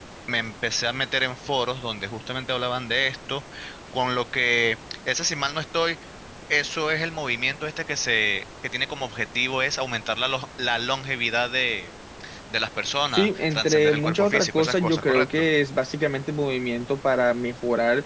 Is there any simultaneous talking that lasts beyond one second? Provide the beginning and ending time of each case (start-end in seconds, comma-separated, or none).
13.1-15.5